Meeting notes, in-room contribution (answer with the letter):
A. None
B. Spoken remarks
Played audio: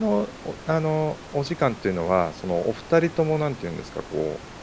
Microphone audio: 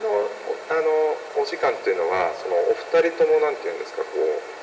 A